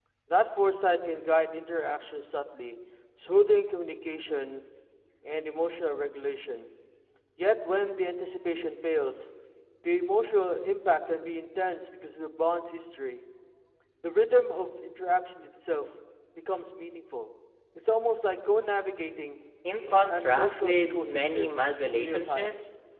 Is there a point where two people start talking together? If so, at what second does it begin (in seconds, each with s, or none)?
19.6 s